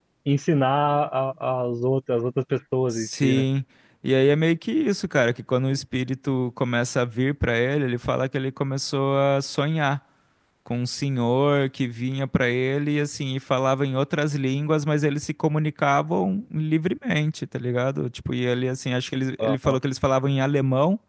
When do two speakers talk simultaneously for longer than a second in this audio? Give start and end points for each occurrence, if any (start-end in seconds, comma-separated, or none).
none